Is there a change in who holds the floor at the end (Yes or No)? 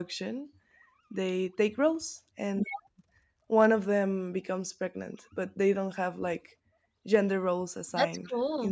No